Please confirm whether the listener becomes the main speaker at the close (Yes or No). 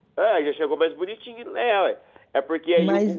No